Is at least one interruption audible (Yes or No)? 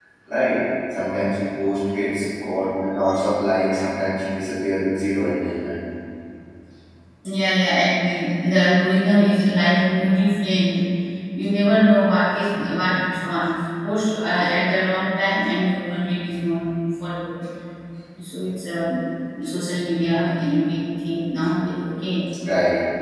No